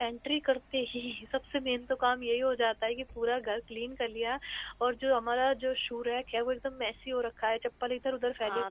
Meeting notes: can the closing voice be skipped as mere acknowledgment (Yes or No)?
No